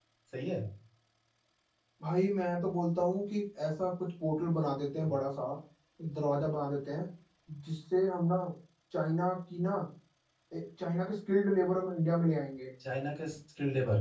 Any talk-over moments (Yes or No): No